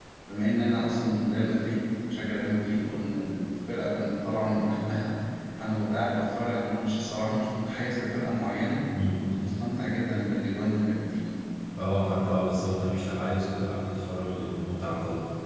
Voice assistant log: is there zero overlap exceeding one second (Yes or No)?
Yes